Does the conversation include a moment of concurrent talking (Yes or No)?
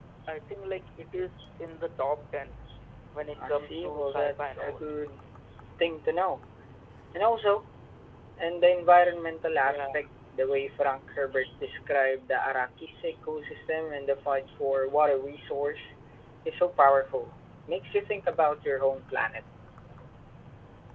Yes